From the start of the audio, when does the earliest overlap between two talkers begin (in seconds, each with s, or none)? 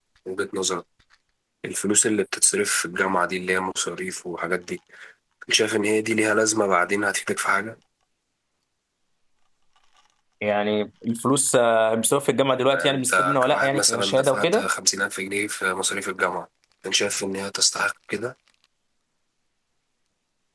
12.7 s